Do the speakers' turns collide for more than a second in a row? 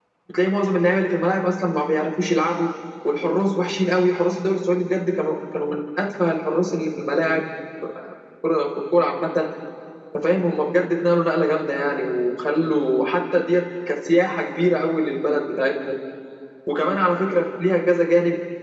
No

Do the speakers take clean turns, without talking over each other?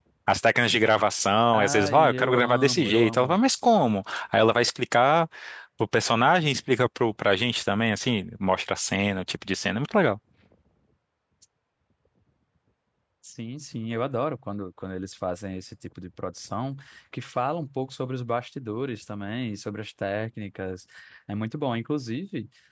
No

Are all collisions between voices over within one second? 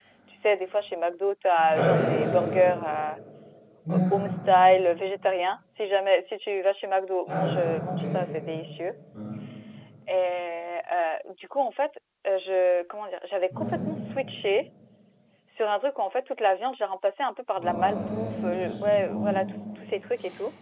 No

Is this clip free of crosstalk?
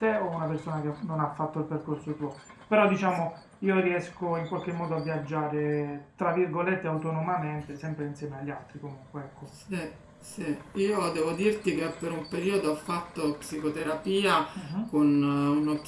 Yes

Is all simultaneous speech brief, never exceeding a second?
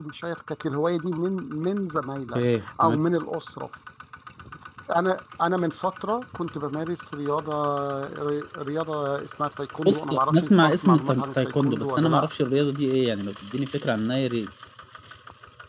No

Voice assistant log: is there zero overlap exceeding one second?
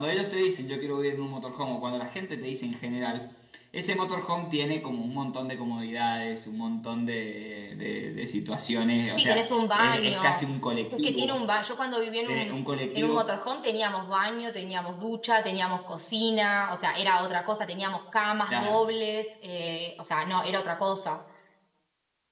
No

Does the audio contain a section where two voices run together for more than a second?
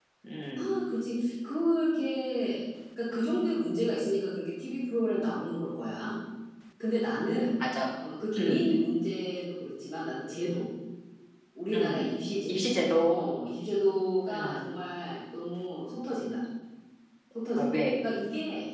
No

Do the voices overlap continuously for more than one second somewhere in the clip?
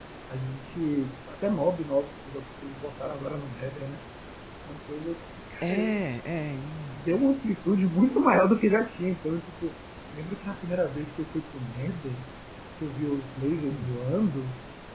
No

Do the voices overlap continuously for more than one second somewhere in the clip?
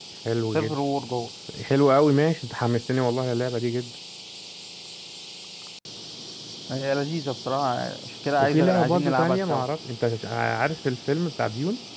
Yes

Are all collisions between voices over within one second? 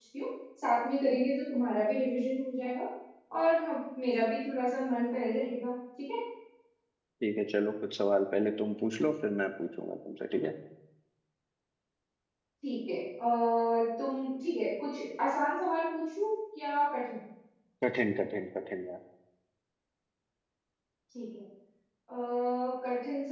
Yes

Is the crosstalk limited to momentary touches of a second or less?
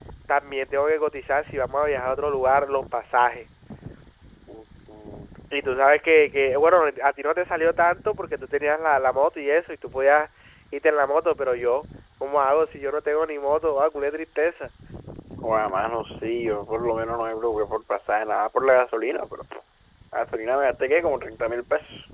Yes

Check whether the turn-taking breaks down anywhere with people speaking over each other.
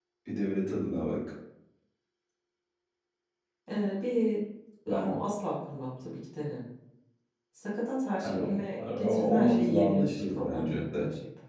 Yes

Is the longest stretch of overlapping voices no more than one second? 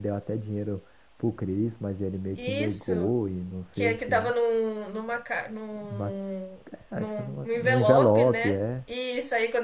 No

